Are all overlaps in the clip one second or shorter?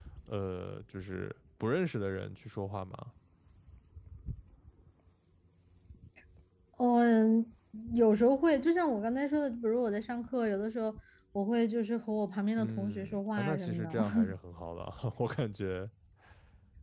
No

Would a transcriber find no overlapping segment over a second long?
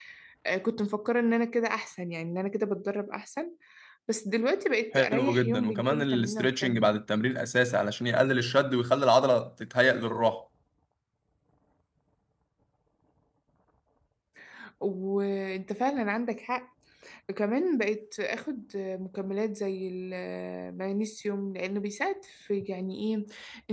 No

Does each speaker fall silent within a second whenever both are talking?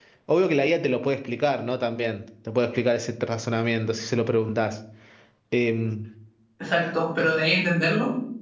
Yes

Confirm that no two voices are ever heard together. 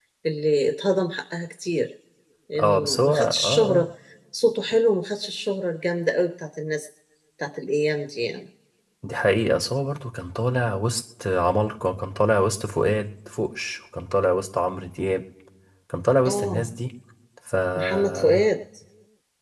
No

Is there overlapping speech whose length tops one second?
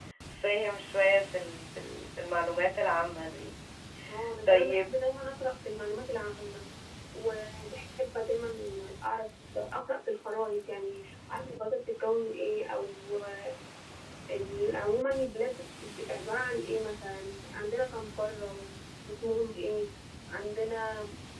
No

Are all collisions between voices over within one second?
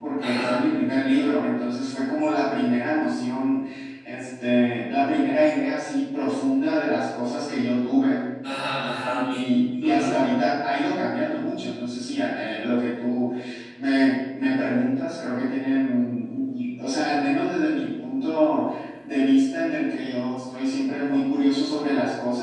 Yes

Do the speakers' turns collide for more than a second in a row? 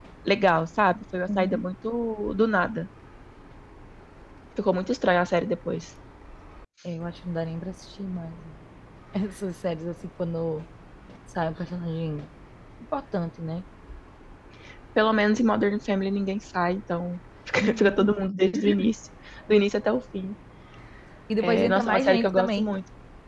Yes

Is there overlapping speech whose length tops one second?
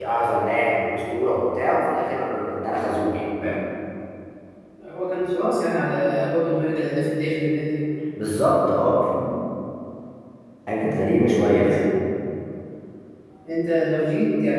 No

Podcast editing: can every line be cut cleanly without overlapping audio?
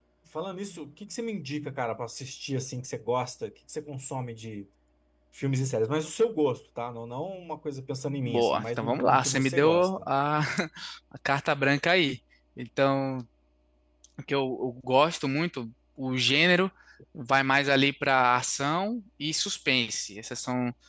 No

